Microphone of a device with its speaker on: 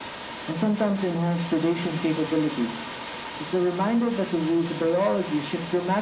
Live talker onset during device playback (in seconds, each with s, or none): none